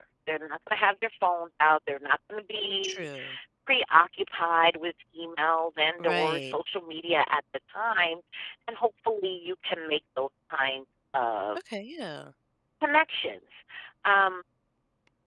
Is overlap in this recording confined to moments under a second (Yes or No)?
Yes